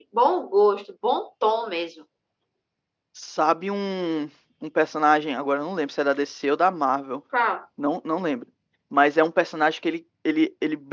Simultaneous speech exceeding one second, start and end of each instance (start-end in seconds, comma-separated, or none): none